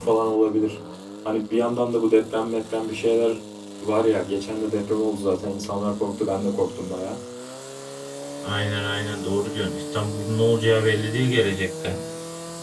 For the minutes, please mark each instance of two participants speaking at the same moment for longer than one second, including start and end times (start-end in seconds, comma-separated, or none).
none